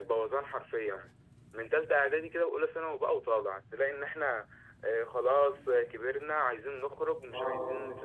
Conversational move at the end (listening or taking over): listening